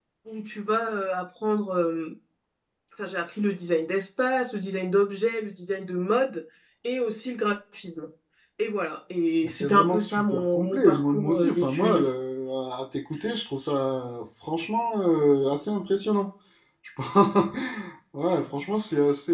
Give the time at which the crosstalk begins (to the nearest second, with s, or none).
9 s